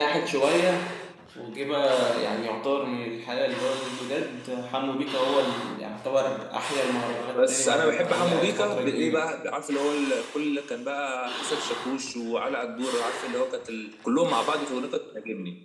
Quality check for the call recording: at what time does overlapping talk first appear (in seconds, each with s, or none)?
7.3 s